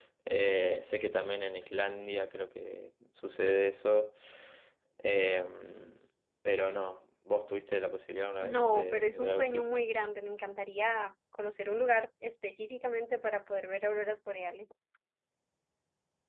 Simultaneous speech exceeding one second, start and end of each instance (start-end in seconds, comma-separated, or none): 8.4-9.7